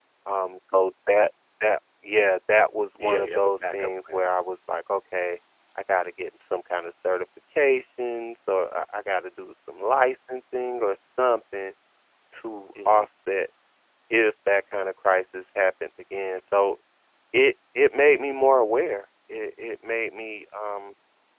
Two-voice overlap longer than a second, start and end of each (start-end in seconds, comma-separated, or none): 3.0-4.3